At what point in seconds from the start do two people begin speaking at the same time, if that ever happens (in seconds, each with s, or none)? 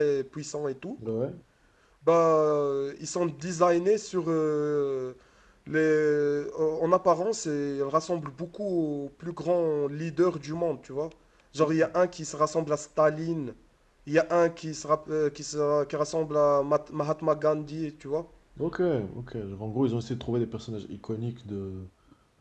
none